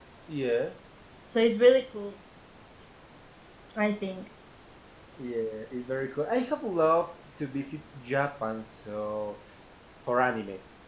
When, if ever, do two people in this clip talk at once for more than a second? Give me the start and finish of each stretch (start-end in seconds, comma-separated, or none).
none